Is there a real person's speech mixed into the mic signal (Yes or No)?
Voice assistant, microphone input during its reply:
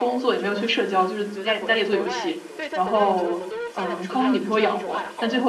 Yes